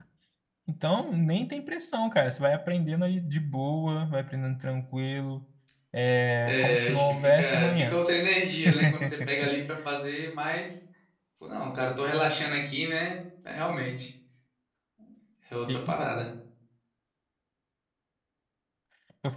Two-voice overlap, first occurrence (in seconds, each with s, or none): 6.5 s